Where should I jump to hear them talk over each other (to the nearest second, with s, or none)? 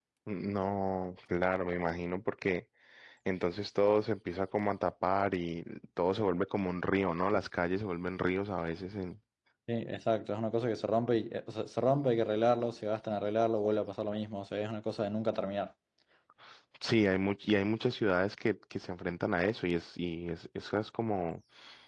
none